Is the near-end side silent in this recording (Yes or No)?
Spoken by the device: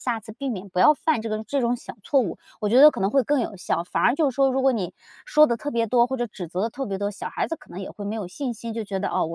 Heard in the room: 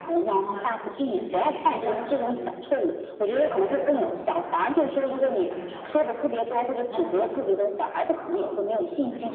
No